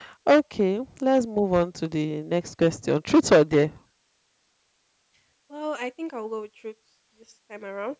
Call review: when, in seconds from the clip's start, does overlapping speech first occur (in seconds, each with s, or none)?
none